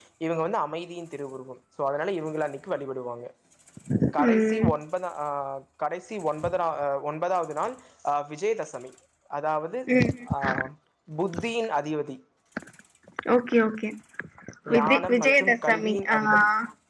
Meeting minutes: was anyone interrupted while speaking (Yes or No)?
Yes